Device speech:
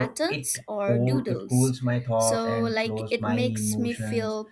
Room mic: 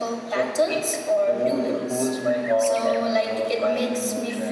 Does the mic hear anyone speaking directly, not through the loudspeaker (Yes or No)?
No